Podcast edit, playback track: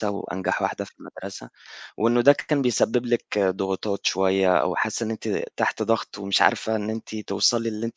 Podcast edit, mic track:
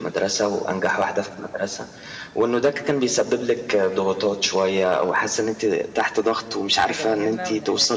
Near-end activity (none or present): present